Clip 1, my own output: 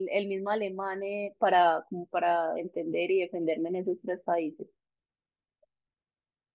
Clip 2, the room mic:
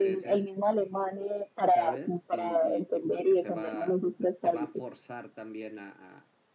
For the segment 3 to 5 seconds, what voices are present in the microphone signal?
both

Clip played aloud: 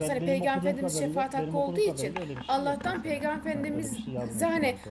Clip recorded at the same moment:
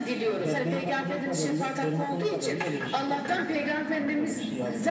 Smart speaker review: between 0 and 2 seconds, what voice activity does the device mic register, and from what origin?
echo only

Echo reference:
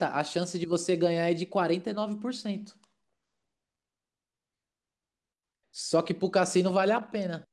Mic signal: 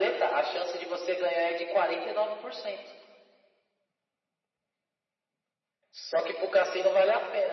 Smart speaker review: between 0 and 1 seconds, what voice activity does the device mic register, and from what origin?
echo only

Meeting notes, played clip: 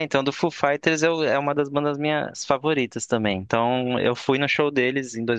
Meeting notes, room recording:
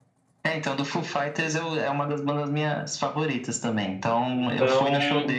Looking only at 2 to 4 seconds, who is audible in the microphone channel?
echo only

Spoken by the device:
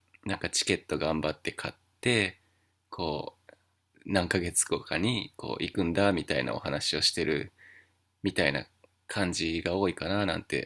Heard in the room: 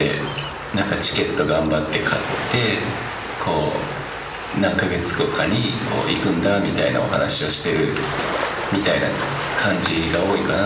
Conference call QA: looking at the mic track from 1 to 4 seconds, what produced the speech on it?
echo only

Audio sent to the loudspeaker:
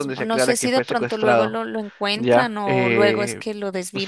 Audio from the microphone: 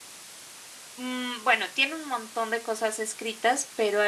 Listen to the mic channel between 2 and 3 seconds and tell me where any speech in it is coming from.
user only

